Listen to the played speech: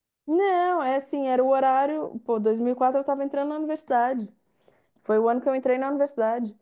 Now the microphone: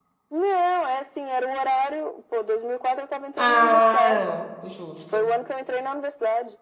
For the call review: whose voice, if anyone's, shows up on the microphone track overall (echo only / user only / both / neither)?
both